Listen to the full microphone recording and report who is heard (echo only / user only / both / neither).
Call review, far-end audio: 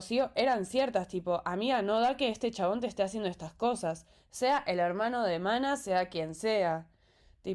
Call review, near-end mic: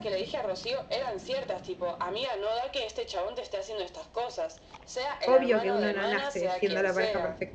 both